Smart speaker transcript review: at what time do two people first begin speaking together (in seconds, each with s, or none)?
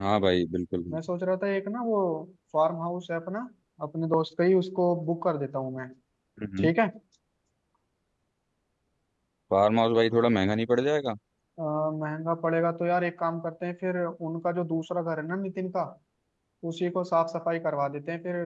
none